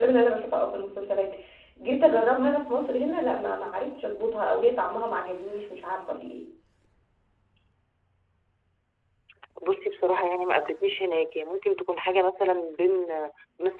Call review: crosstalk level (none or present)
none